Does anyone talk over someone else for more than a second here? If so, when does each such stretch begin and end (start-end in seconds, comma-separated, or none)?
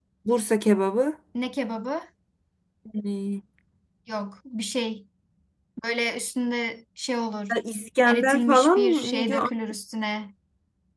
8.1-9.5